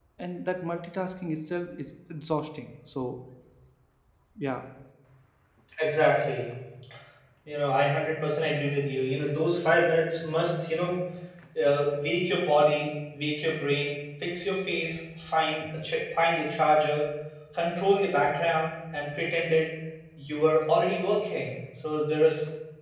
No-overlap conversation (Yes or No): Yes